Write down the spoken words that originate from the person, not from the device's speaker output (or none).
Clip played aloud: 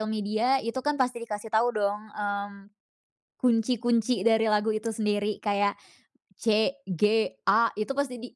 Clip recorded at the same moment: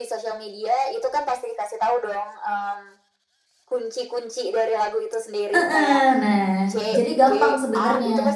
Heeh. Nah, jadi gampang sebenernya.